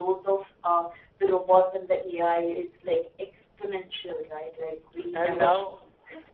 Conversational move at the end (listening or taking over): taking over